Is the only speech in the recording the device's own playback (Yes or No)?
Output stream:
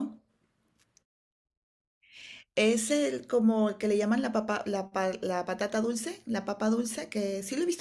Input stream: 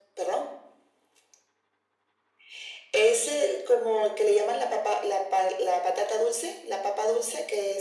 Yes